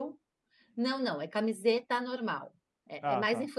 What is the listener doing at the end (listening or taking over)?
listening